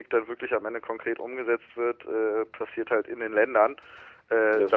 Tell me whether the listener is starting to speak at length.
No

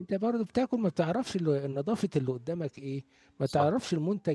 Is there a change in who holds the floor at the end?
No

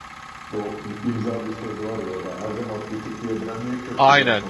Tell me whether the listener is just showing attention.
No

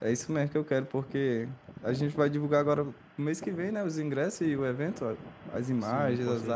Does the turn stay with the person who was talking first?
No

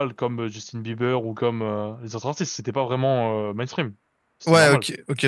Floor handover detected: Yes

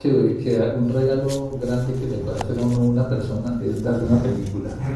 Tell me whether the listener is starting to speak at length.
No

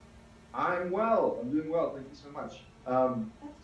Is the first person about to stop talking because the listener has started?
No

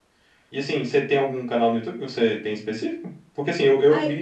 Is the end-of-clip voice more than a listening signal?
No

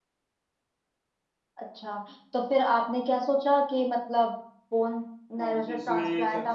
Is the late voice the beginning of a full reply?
Yes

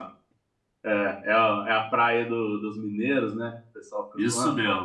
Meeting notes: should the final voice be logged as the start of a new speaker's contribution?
Yes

